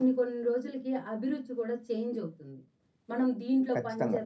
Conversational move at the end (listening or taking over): listening